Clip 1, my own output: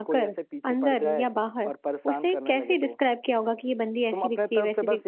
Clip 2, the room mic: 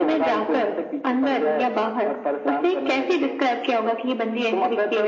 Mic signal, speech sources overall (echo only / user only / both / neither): echo only